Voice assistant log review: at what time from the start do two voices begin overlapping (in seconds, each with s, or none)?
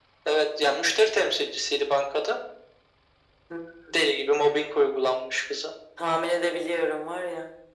none